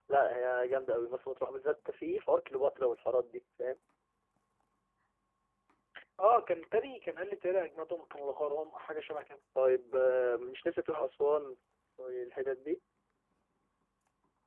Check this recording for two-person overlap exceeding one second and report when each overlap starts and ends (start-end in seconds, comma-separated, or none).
none